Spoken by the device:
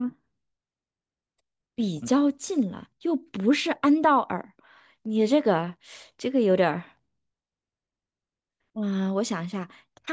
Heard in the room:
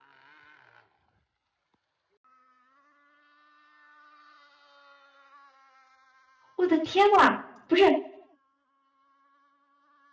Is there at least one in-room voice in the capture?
Yes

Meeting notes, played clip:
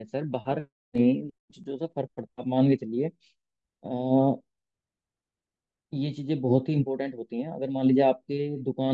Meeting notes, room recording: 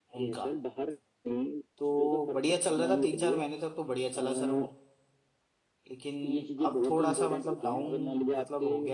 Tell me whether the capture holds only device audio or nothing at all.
No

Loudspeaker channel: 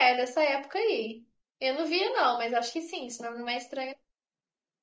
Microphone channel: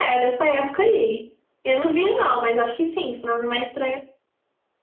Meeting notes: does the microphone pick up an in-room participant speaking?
No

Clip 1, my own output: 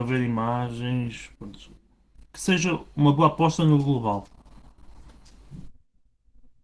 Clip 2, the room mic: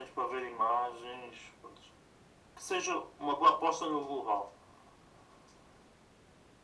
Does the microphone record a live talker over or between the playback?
No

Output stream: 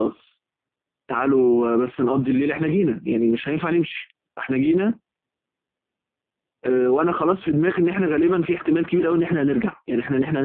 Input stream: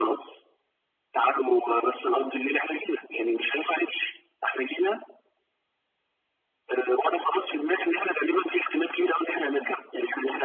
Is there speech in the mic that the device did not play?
No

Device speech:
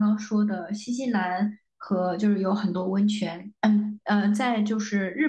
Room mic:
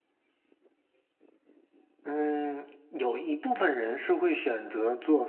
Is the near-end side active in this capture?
Yes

